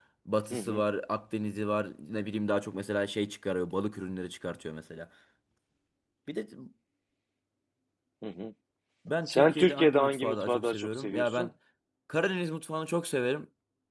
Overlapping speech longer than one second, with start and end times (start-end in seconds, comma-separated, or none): 9.3-11.5